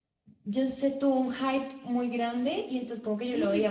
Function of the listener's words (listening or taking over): listening